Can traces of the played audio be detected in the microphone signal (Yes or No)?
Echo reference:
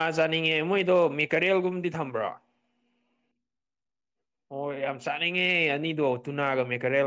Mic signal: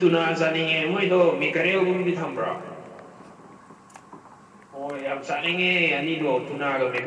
Yes